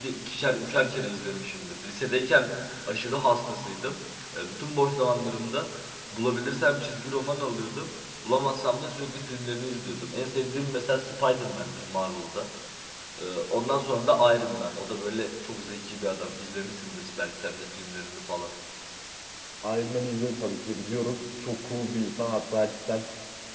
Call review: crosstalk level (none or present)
none